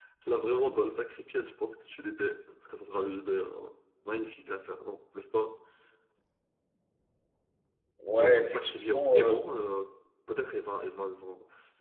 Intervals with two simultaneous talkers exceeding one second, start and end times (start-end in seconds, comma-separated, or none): 8.2-9.5